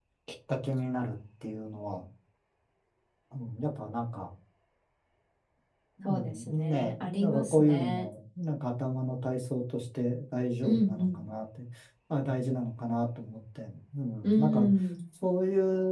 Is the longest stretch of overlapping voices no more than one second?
No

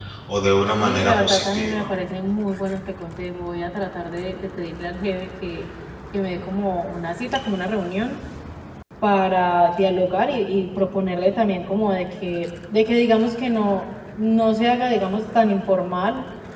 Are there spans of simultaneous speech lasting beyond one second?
Yes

